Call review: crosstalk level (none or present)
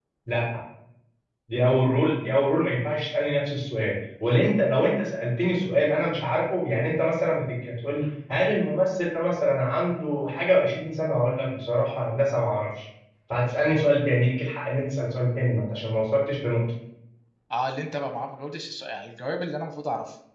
none